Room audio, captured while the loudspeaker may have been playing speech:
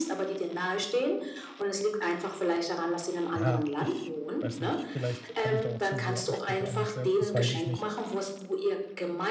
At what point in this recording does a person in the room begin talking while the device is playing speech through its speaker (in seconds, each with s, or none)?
3.3 s